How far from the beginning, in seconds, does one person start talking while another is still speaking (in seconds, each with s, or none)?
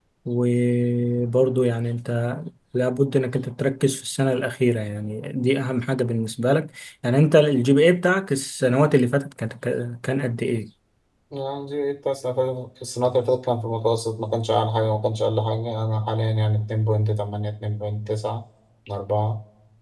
none